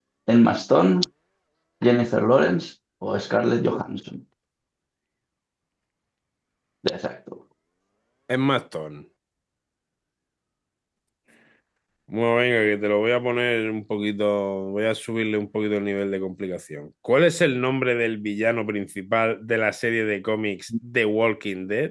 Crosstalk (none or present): none